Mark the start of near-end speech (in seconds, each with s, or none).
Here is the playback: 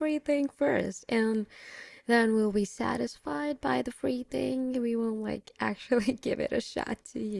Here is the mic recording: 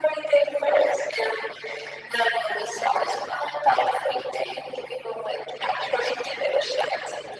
none